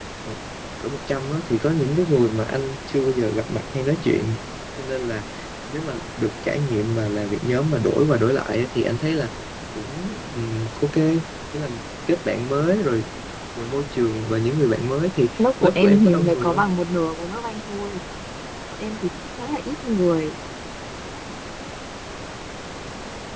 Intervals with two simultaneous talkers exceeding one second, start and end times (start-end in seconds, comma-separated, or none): 15.4-16.6